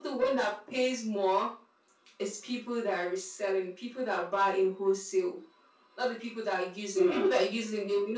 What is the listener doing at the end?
listening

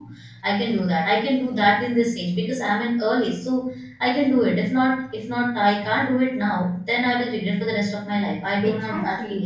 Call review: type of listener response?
taking over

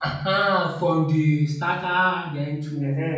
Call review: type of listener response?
taking over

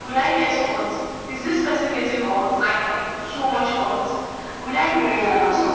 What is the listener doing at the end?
listening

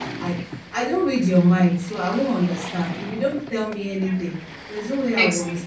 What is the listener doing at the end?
listening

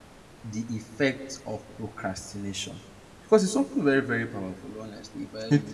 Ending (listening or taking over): listening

